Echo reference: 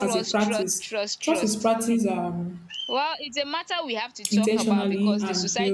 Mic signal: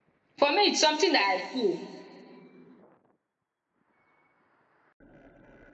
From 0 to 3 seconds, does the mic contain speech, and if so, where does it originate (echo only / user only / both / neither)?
user only